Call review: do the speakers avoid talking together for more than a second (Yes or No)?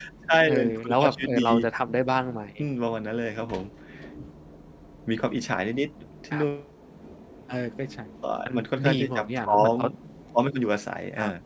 No